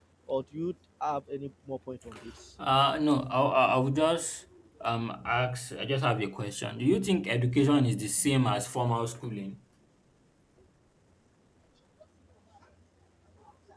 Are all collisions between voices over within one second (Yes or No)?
Yes